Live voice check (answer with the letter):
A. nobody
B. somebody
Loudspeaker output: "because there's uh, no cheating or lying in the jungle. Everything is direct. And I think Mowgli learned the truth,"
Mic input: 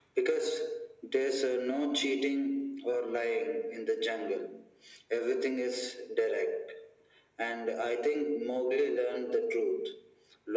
A